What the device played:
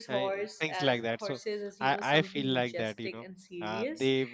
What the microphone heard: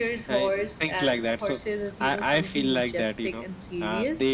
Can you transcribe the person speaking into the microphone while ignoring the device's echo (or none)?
none